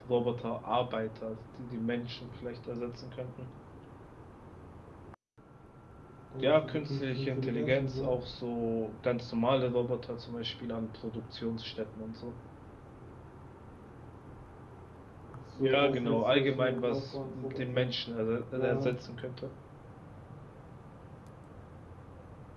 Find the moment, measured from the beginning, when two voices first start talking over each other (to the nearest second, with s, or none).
6 s